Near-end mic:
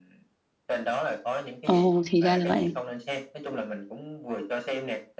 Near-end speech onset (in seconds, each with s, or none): 1.6 s